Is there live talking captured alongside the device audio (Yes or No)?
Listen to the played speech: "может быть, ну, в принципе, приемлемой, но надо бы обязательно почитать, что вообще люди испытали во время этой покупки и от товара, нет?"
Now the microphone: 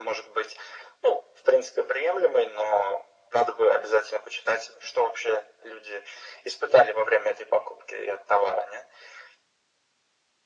No